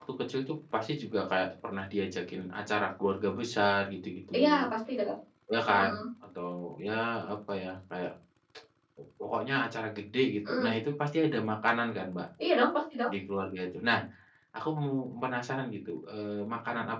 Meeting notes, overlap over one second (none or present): none